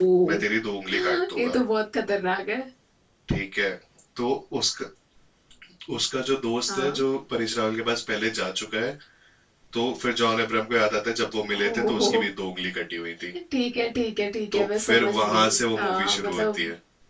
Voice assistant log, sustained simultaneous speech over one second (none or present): present